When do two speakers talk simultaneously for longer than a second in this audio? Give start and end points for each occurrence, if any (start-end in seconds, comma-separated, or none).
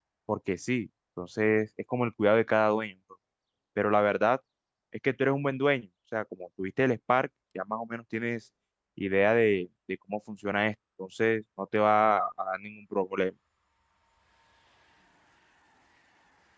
none